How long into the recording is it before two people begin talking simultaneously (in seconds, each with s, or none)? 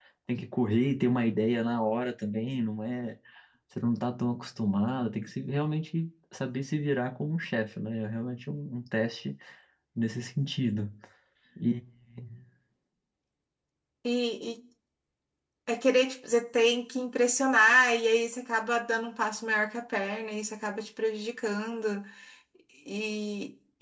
none